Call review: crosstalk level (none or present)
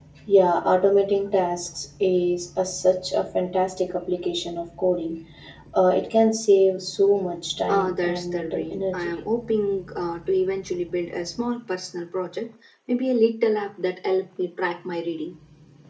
present